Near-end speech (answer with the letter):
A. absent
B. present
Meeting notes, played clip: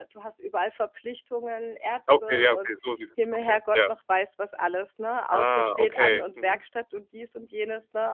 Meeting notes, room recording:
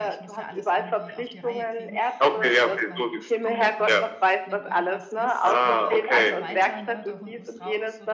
B